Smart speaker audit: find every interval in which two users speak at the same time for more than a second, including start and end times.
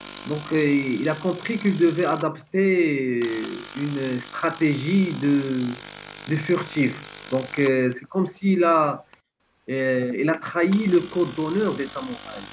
none

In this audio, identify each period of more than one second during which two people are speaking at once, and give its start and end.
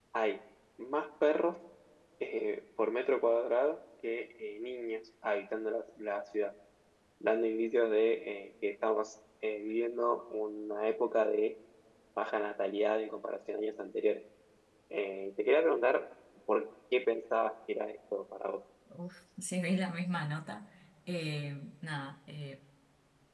none

